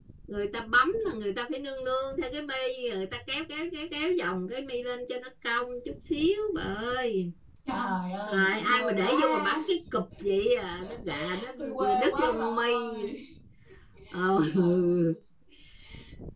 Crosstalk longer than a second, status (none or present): present